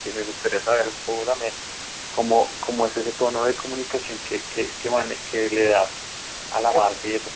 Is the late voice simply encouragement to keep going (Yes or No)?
Yes